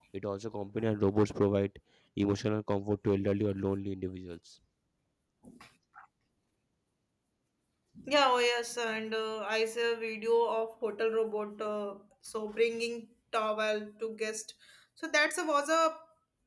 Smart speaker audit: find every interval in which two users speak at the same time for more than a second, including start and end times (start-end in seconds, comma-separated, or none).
none